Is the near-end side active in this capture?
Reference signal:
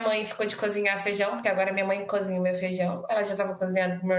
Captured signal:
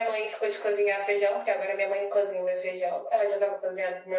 No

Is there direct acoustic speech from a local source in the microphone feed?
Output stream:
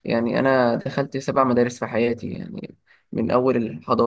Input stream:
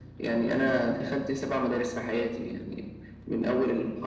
No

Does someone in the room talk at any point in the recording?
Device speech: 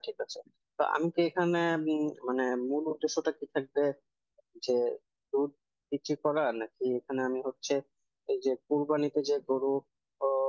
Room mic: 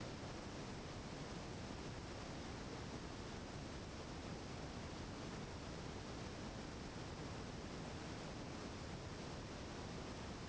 No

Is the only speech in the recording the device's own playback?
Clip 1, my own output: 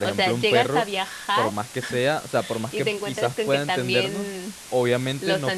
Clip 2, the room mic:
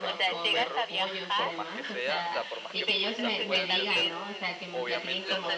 No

